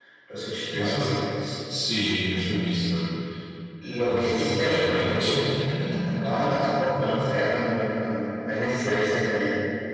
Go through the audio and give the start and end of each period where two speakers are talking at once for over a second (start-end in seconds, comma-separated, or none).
4.1-5.5